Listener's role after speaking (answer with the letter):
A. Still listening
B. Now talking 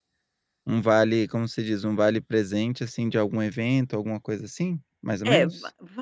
B